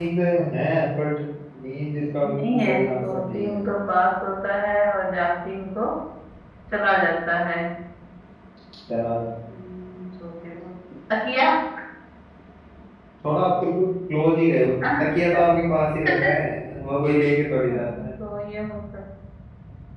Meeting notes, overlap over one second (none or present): present